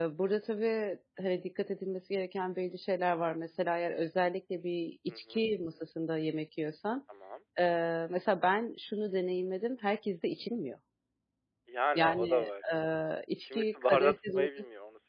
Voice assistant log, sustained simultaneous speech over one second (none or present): present